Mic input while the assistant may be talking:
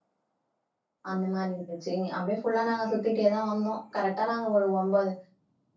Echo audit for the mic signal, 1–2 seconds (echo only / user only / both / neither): user only